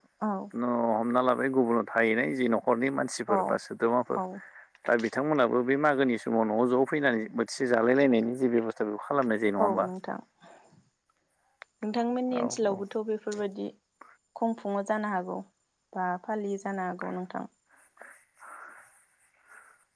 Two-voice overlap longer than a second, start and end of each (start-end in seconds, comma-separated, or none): none